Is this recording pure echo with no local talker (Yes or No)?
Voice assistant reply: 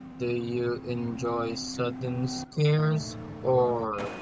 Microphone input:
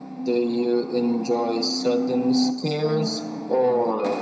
Yes